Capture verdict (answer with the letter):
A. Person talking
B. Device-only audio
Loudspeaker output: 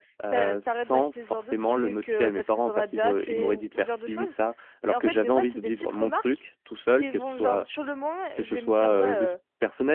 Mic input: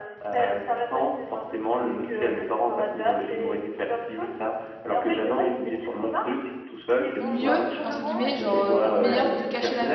A